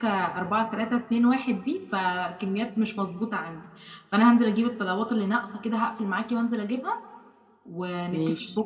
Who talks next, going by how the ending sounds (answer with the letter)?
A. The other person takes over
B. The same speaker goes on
B